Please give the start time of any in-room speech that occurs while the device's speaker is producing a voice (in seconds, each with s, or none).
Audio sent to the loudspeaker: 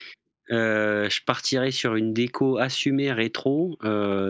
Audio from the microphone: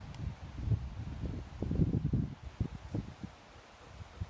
none